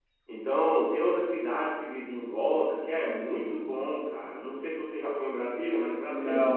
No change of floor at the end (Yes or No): No